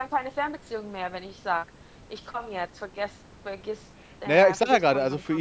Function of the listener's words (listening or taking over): taking over